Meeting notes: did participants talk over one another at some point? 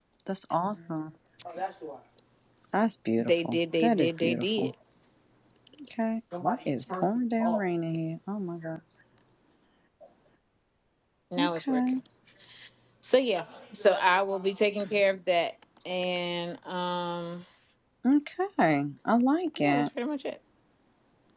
Yes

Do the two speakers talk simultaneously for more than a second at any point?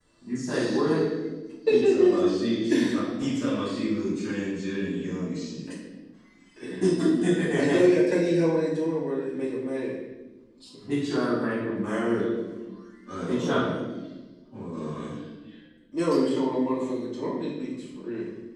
No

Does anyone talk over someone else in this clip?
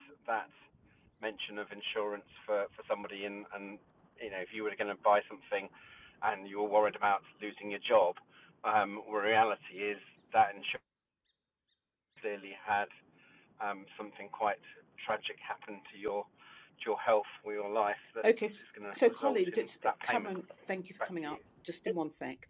Yes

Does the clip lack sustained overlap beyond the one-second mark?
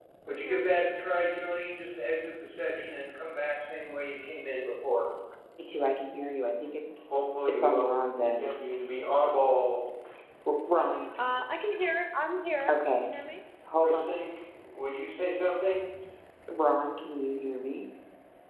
Yes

